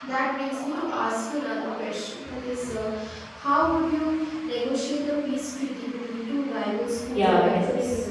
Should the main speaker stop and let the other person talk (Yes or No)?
Yes